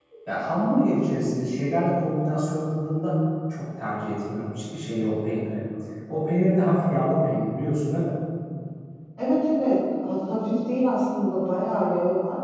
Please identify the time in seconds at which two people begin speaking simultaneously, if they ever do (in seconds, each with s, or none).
none